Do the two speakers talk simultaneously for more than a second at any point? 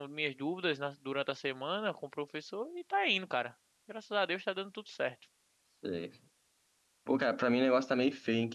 No

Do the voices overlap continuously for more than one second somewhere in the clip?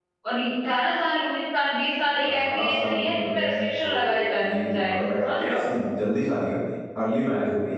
Yes, from 2.2 s

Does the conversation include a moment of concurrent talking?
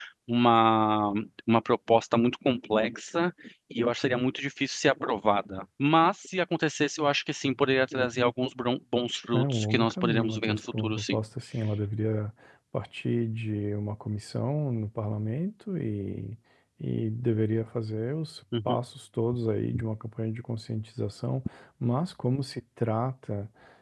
Yes, from 9.3 s

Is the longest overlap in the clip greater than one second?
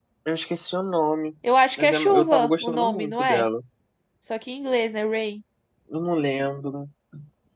Yes, from 1.8 s

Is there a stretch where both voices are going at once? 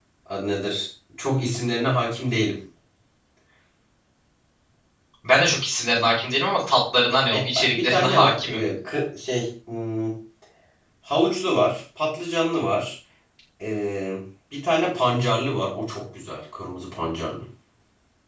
Yes, from 7.3 s

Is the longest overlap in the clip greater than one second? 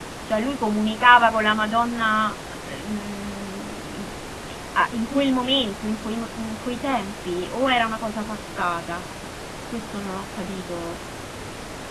No

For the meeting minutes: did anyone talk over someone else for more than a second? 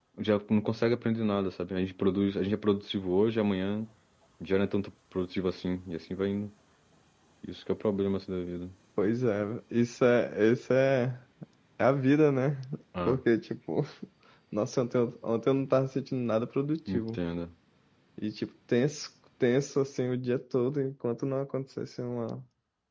No

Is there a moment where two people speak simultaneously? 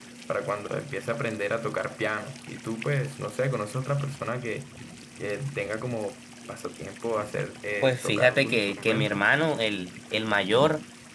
Yes, from 7.8 s

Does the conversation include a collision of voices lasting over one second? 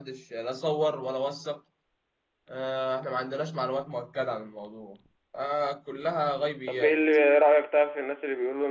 No

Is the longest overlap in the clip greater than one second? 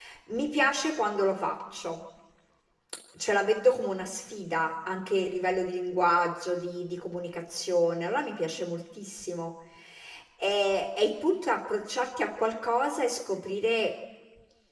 No

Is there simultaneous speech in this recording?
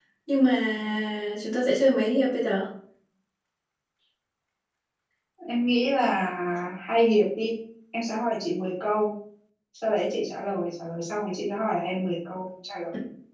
No

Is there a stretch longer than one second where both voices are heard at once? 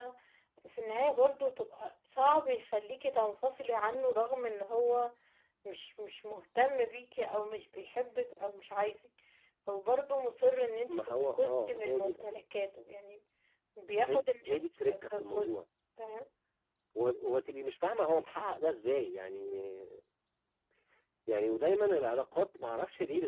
Yes, from 10.9 s

